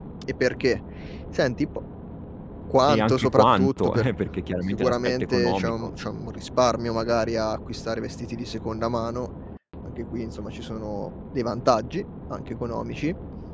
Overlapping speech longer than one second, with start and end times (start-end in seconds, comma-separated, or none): 2.9-4.1, 4.7-5.9